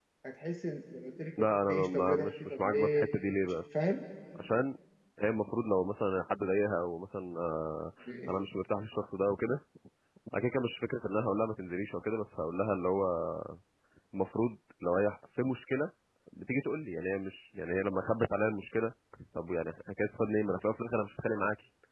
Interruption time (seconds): 2 s

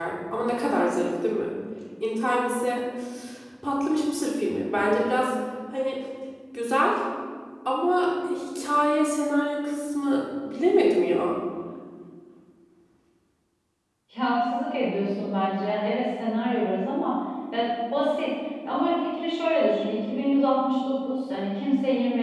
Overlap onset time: none

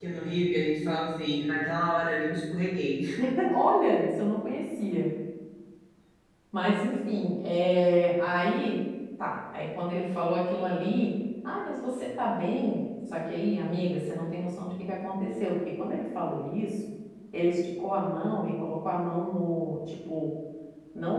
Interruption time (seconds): none

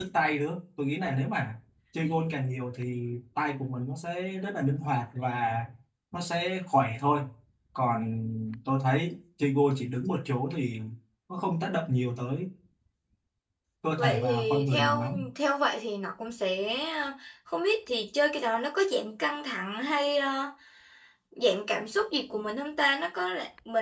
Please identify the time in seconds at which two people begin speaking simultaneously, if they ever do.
14 s

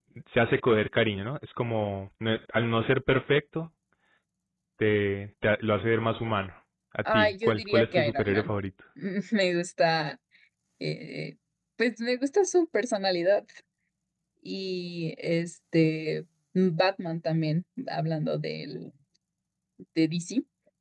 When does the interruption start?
7 s

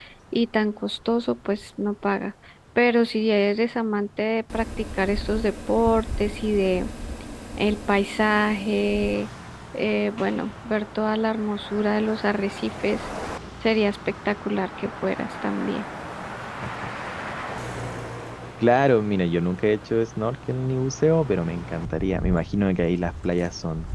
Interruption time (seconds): none

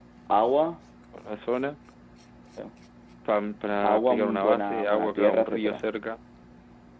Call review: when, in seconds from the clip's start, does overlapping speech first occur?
4 s

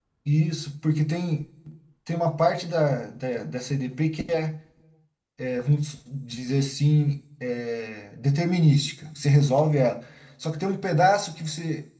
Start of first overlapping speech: none

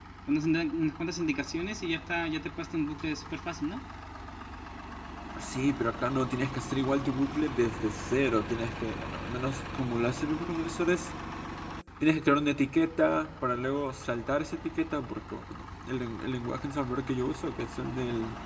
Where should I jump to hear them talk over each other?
none

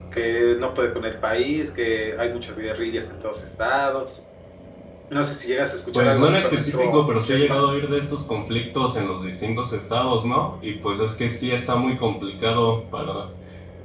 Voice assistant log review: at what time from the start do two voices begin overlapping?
6 s

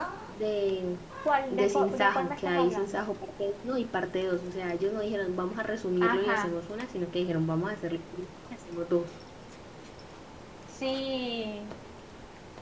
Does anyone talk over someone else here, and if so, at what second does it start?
2 s

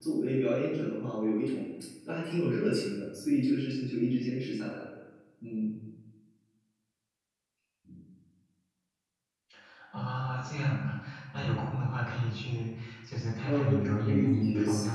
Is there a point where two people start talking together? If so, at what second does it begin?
13 s

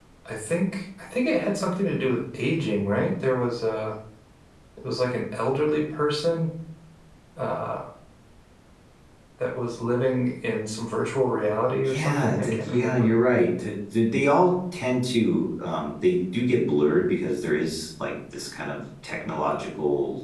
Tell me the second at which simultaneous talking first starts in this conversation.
12 s

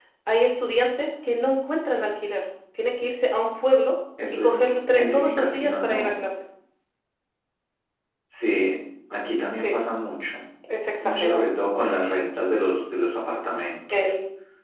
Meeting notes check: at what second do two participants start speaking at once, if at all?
4 s

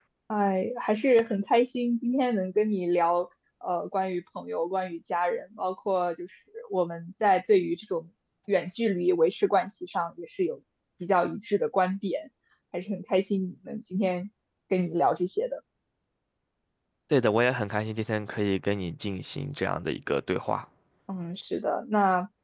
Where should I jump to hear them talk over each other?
none

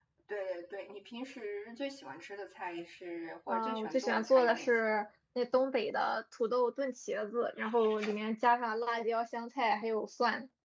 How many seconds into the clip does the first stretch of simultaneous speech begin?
3 s

